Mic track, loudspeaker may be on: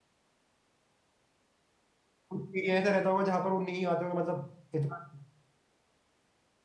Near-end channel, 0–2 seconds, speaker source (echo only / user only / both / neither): neither